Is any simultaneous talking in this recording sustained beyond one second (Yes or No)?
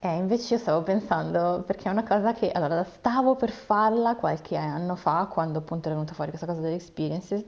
No